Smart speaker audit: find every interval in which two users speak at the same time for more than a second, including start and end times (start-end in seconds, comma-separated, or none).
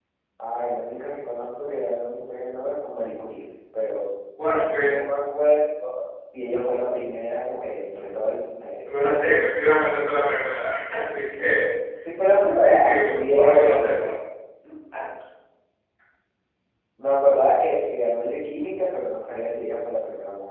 12.6-14.1